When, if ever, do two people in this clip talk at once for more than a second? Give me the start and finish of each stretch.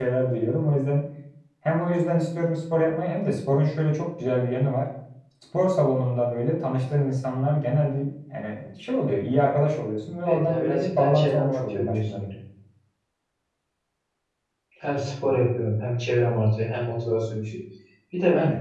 10.2-12.0

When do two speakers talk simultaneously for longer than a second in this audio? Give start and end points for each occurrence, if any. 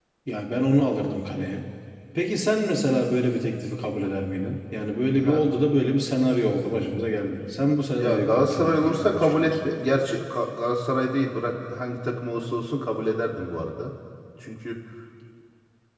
7.9-9.7

